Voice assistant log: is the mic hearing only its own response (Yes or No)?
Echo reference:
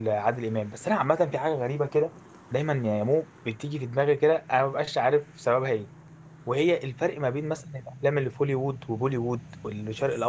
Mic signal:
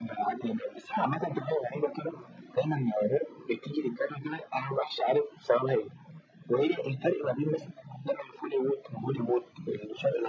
Yes